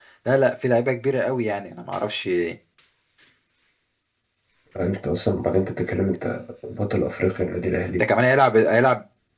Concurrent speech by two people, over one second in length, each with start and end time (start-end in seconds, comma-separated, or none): none